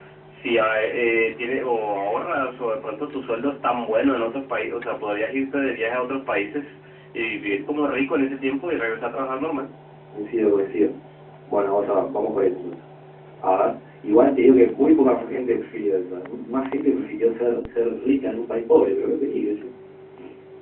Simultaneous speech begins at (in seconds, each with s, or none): none